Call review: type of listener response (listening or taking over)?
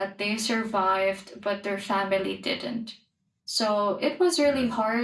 listening